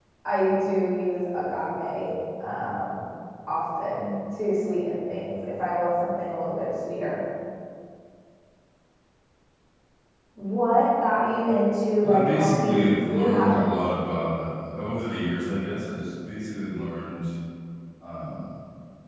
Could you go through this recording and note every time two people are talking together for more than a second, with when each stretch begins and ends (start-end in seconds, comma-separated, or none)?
12.0-13.6